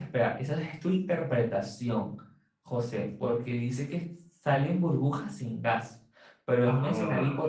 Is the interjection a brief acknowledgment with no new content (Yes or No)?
Yes